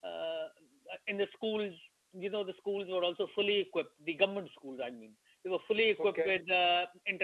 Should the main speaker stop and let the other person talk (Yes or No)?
No